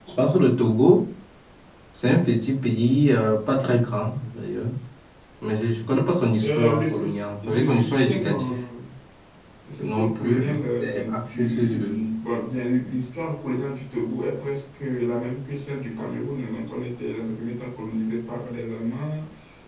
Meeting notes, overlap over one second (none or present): present